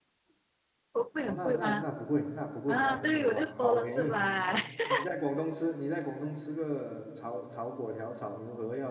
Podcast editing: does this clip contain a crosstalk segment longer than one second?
Yes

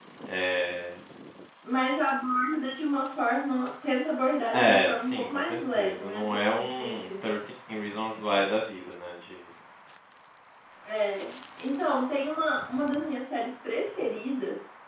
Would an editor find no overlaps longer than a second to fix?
No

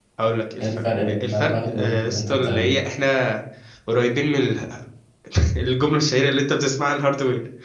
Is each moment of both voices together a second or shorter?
No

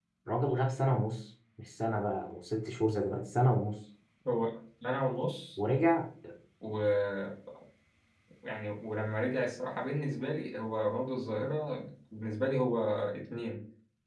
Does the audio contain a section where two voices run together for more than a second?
No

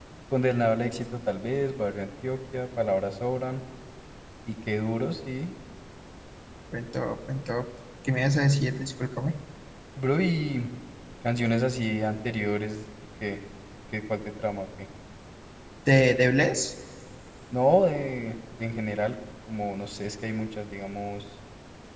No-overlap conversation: Yes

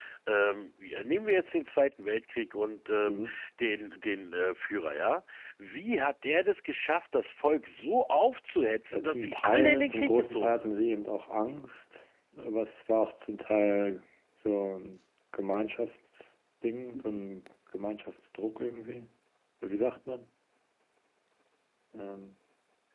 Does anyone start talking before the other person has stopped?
Yes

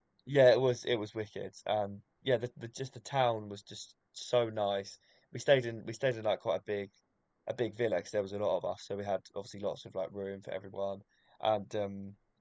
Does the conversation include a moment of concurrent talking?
No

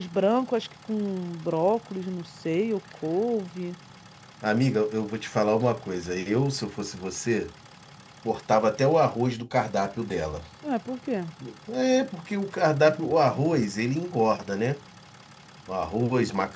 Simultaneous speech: No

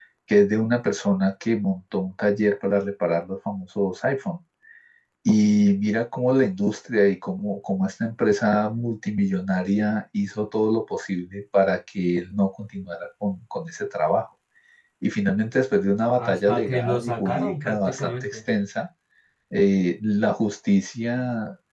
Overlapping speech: Yes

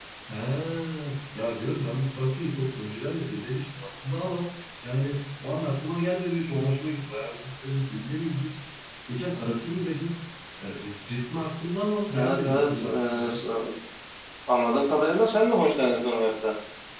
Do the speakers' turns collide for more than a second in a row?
Yes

